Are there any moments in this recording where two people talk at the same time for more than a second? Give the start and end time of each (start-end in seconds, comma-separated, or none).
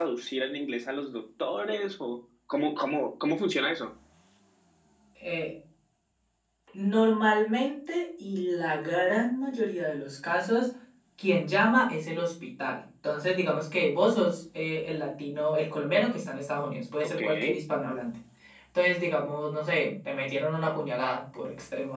none